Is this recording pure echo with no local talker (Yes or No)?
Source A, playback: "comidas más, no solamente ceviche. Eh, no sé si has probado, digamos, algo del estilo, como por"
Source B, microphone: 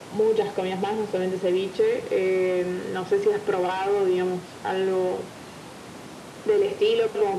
Yes